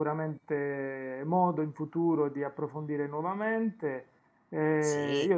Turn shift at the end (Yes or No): No